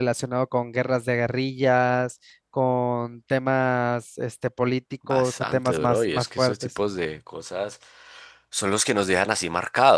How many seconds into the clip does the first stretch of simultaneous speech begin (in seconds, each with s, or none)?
5.1 s